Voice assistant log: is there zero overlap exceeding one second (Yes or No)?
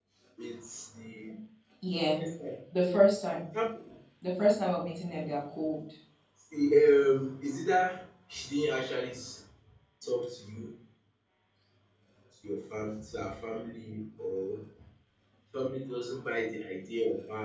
Yes